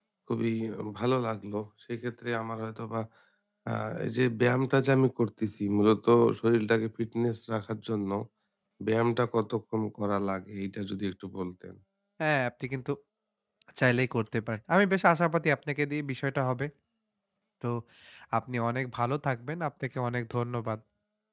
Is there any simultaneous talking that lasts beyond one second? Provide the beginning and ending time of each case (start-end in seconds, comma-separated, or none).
none